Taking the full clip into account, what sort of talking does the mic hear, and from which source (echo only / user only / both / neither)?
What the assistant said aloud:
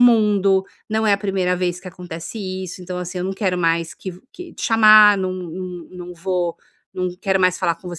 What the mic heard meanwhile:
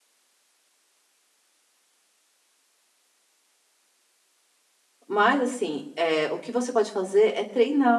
user only